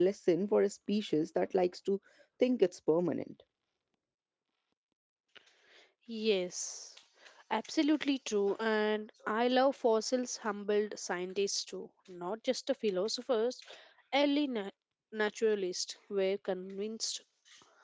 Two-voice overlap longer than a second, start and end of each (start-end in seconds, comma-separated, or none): none